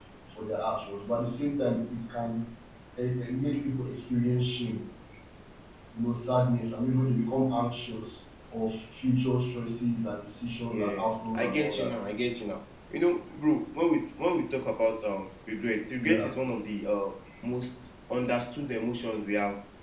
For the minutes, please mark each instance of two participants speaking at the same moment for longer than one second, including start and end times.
10.7-12.0

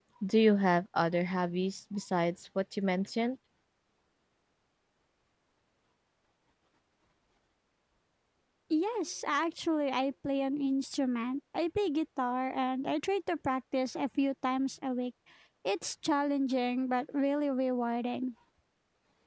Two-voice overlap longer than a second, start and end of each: none

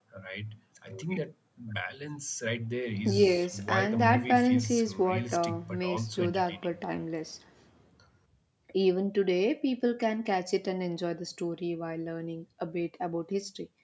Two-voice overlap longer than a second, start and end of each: 3.1-6.7

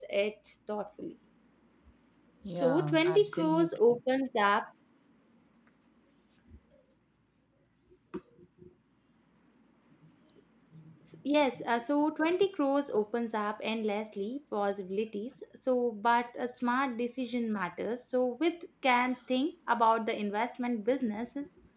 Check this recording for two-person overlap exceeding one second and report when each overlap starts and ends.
2.6-4.0

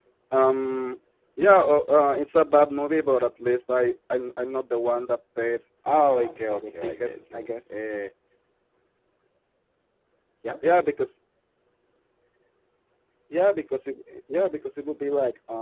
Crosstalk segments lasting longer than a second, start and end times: 6.1-7.5

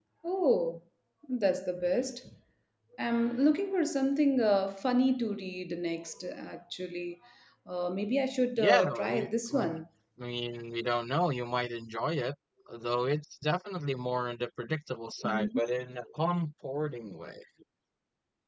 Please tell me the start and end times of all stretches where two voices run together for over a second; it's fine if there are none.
8.6-9.8

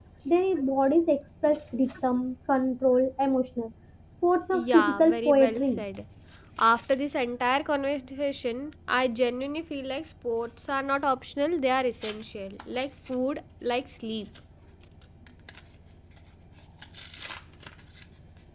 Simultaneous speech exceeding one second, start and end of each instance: 4.5-5.8

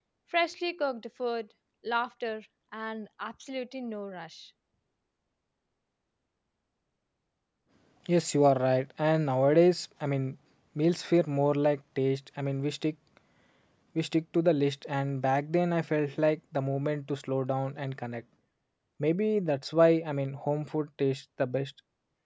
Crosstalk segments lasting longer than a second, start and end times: none

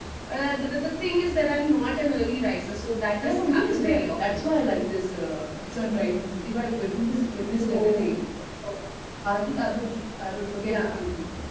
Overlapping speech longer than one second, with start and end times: 3.2-4.5

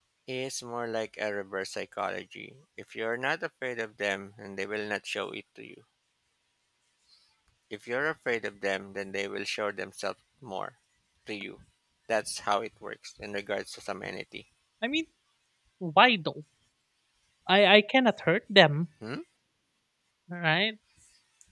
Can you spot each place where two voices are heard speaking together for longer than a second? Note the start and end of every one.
none

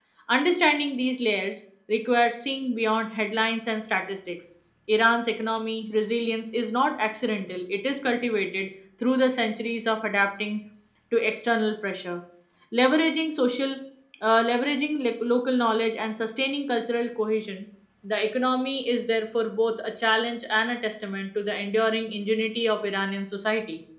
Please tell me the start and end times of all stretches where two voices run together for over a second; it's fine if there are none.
none

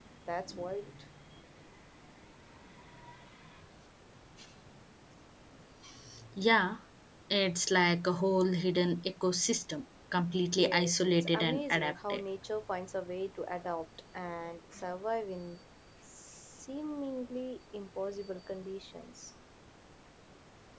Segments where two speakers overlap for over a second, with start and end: 10.6-12.2

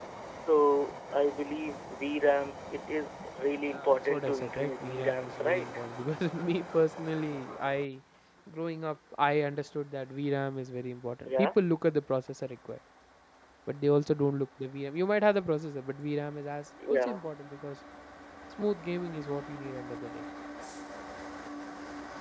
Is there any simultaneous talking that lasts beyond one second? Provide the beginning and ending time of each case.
3.6-5.7

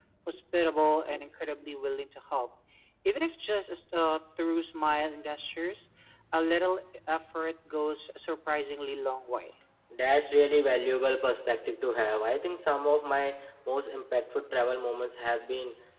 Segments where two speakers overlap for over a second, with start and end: none

